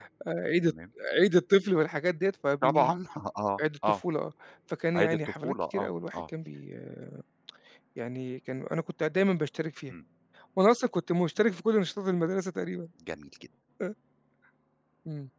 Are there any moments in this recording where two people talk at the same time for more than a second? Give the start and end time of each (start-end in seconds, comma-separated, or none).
4.9-6.2